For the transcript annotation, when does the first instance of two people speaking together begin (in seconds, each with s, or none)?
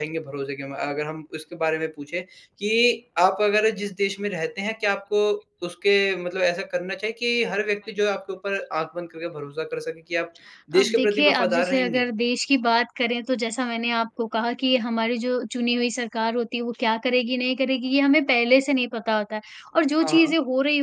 10.8 s